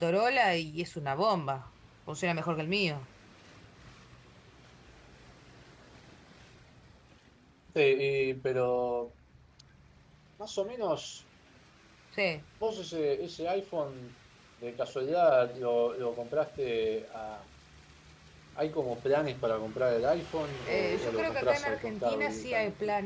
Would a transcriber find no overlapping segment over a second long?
No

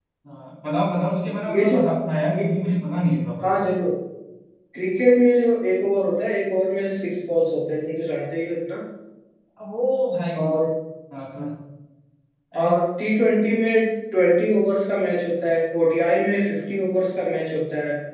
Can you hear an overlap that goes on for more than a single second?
No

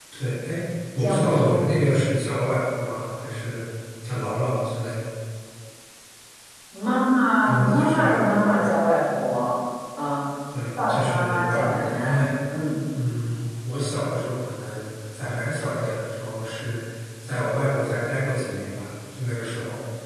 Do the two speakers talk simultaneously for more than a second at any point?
Yes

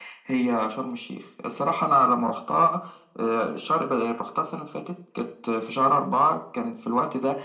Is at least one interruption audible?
No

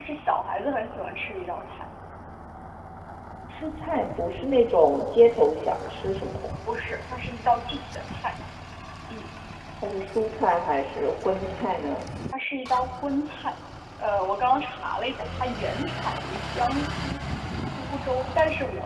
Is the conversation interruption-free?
Yes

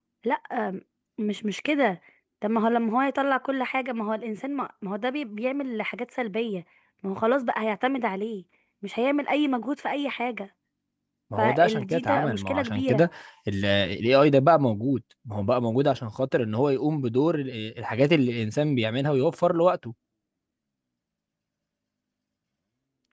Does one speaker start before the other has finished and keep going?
Yes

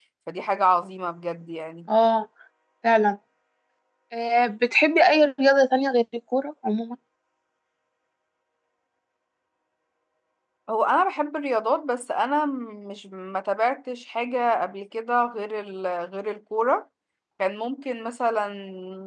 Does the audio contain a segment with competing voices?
No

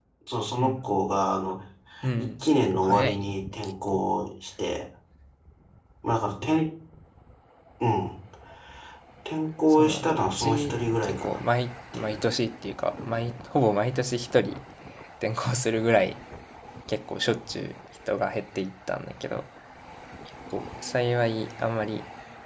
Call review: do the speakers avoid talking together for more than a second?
No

